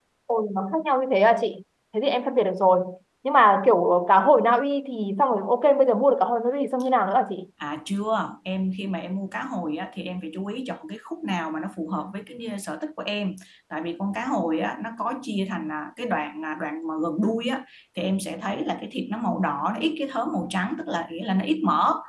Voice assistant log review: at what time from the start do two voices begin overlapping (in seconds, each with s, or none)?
none